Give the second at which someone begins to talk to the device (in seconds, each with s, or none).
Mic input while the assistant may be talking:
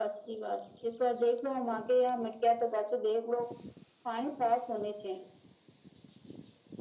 none